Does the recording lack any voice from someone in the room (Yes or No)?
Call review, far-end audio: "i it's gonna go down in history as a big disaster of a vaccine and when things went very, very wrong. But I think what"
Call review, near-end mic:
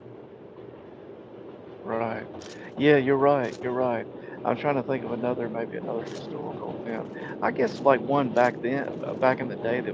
No